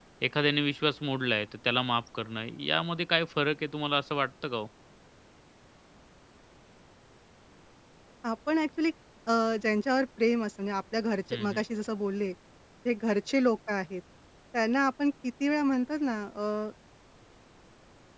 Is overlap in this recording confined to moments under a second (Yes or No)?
Yes